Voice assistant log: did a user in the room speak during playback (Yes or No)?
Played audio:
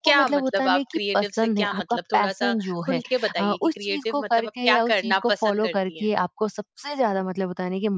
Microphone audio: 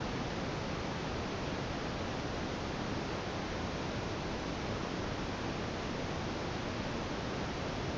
No